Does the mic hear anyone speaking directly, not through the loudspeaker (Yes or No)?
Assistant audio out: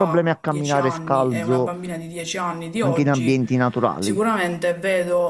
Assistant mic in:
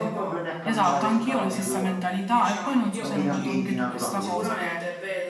Yes